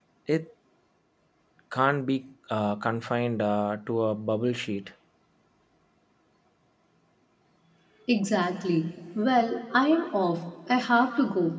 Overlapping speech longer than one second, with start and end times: none

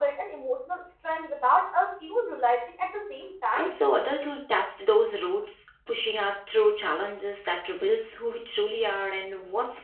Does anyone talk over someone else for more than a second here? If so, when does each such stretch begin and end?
none

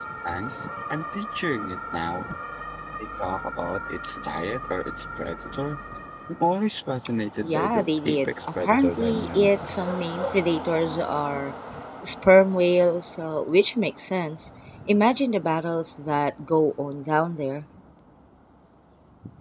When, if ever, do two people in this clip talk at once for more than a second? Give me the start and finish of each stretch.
7.4-9.8

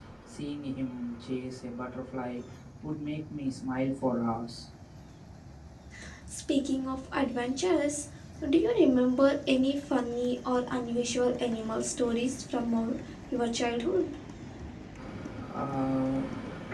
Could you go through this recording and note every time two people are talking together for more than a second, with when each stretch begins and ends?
none

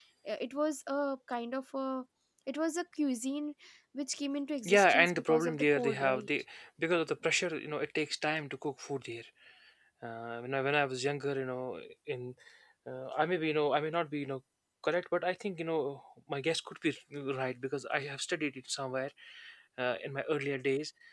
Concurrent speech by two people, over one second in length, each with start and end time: 4.6-6.3

